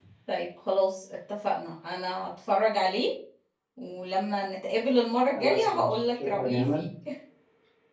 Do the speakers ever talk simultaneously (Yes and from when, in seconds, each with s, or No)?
Yes, from 5.4 s